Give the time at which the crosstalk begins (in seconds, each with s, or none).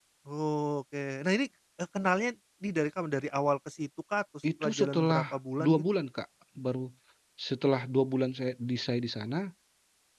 4.4 s